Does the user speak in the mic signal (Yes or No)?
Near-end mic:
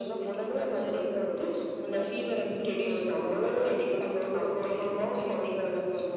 No